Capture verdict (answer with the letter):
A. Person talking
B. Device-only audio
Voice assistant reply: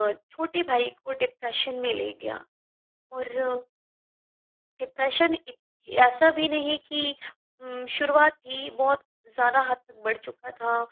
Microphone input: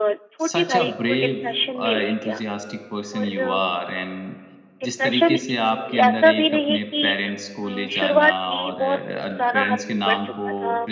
A